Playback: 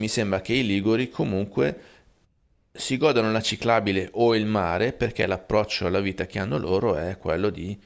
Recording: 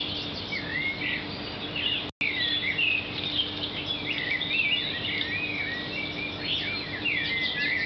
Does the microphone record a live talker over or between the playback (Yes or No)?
No